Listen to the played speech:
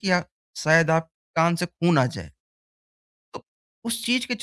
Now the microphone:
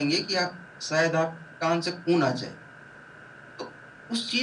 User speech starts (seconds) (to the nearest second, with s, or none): none